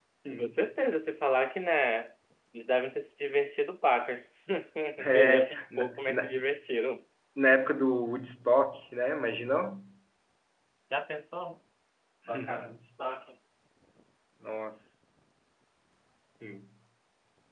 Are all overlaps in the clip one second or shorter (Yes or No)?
No